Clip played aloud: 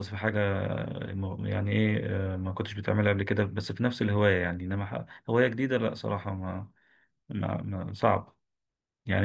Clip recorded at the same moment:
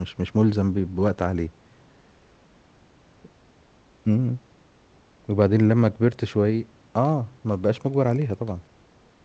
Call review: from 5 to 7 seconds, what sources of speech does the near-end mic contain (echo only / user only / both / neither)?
user only